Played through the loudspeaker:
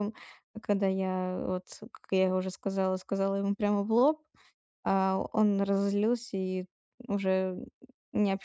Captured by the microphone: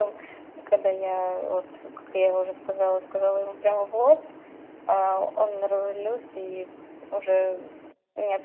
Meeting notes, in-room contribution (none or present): none